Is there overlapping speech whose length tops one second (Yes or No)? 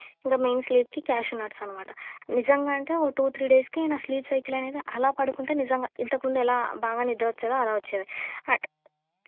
No